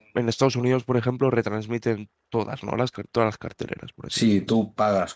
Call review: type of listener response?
taking over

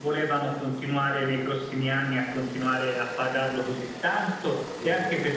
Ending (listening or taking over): listening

